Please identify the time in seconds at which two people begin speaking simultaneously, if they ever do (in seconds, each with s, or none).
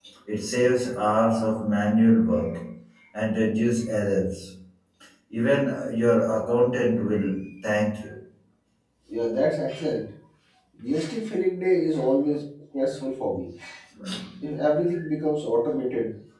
none